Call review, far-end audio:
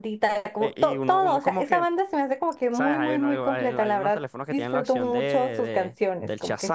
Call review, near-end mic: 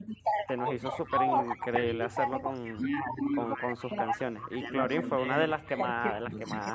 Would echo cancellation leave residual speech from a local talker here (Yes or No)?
Yes